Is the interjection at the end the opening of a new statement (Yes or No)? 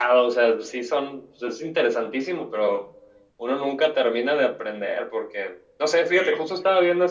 No